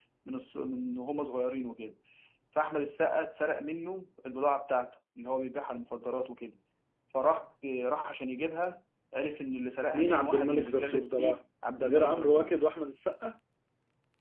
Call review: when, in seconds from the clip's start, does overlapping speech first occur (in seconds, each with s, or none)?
9.9 s